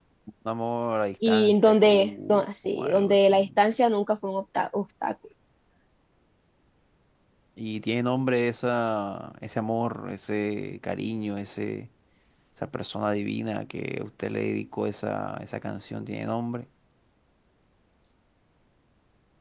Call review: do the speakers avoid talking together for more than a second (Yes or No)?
No